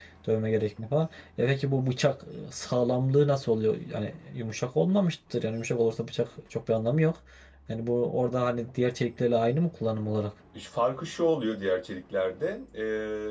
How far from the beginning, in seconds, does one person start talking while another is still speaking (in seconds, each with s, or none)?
none